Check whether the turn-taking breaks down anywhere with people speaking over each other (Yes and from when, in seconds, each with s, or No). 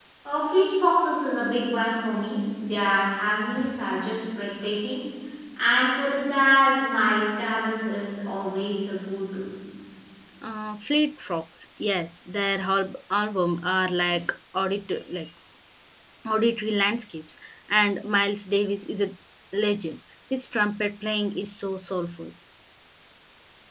No